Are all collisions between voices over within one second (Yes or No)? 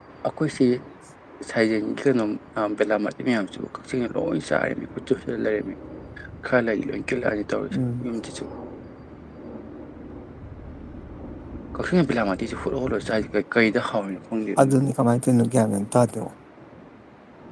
Yes